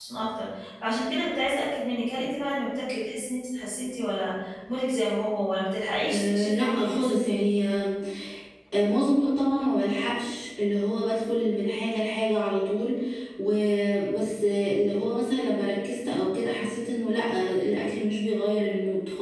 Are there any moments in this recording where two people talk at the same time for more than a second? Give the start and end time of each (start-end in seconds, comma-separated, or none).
6.1-7.3